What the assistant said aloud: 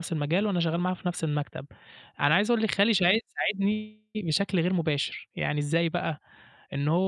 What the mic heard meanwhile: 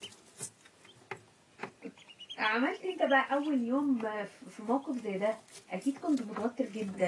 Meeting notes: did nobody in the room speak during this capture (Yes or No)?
No